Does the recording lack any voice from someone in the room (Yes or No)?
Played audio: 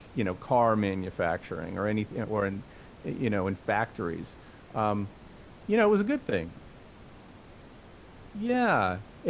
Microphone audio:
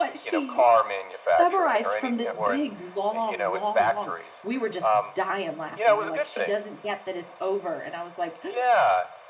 No